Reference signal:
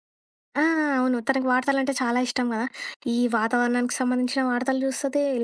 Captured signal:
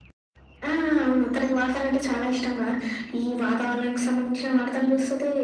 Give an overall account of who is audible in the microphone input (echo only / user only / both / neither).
echo only